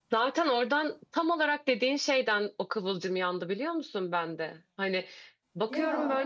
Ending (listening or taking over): listening